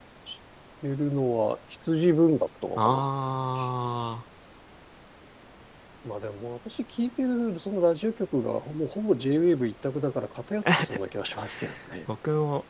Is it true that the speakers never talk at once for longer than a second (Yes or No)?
Yes